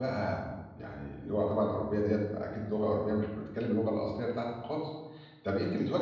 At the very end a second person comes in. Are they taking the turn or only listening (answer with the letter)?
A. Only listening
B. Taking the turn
A